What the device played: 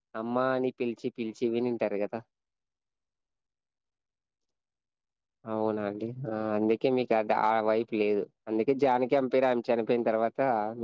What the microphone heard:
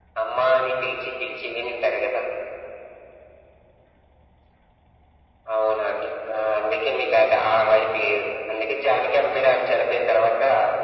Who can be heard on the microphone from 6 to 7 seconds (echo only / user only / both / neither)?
echo only